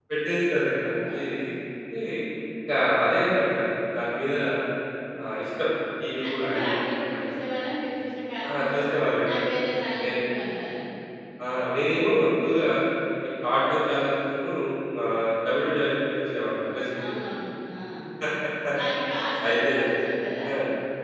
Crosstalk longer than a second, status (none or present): none